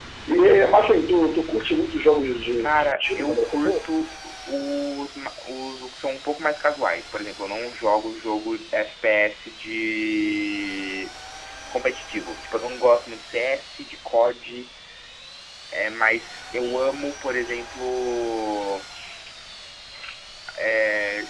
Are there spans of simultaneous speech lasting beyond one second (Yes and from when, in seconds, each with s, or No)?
Yes, from 2.6 s